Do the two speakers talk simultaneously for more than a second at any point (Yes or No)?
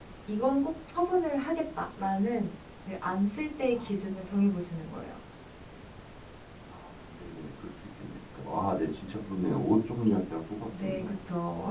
No